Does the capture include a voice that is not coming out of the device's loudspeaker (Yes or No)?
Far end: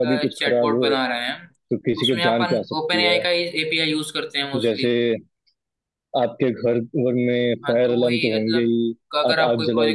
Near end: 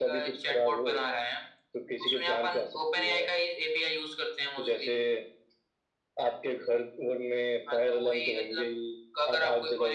No